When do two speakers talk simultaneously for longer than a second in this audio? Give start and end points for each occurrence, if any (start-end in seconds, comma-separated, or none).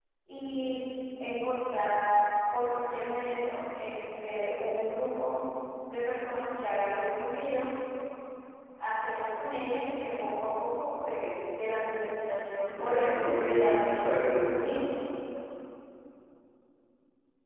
12.6-14.5